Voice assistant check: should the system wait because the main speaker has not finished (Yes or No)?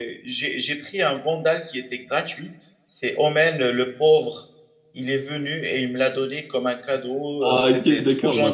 No